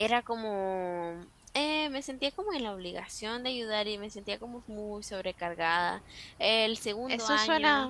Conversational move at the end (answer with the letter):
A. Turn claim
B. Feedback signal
A